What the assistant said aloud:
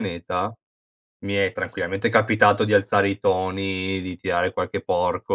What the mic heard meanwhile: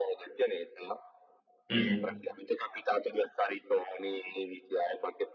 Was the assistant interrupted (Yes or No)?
Yes